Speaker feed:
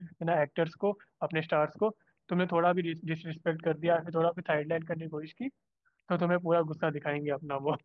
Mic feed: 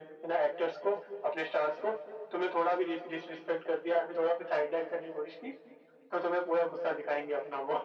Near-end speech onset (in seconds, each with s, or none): none